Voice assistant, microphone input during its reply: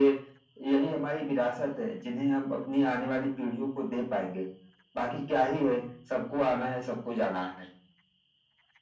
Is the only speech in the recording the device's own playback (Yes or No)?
Yes